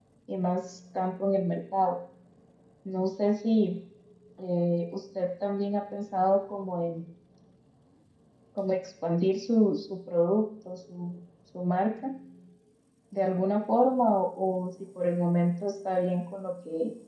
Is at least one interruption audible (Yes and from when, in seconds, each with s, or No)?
No